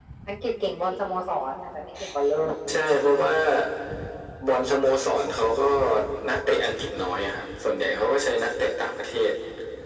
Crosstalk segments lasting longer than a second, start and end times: none

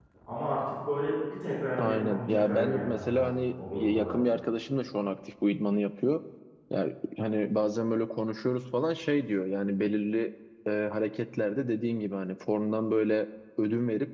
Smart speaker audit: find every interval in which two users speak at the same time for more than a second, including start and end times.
1.8-4.2

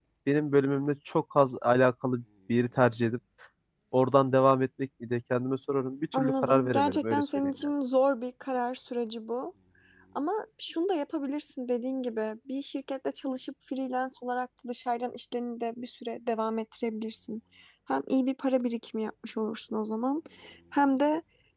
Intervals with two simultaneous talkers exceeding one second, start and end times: 6.1-7.5

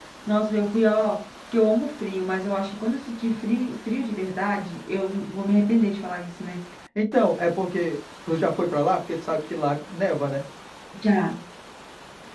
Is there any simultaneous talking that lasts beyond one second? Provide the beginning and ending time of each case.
none

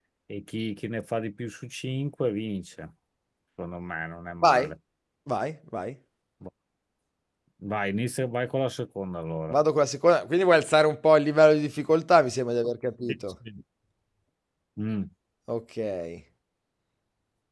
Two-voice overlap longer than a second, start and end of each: none

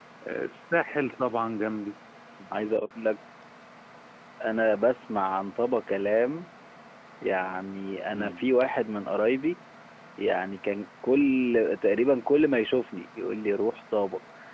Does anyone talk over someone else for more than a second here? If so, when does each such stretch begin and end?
none

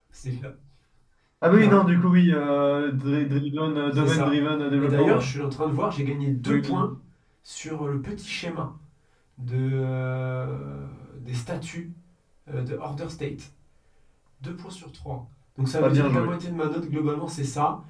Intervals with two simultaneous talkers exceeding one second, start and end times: none

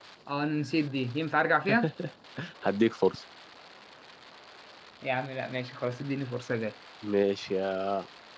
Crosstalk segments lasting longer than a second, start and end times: none

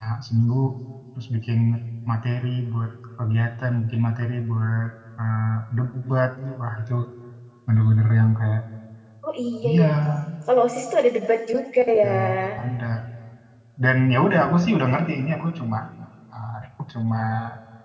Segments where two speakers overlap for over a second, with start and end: none

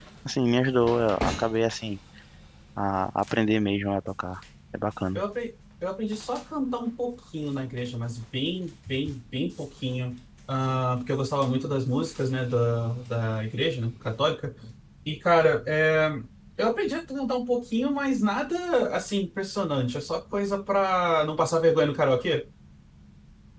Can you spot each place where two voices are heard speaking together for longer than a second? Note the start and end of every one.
none

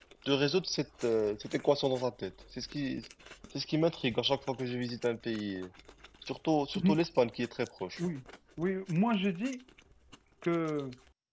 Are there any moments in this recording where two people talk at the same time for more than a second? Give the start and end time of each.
none

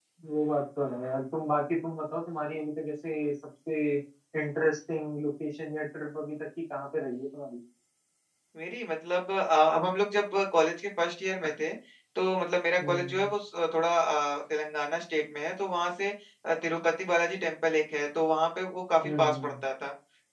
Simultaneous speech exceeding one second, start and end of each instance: none

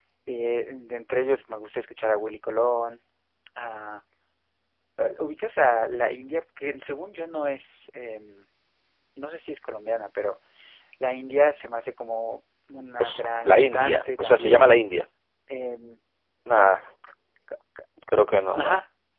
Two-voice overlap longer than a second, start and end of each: 13.0-14.7

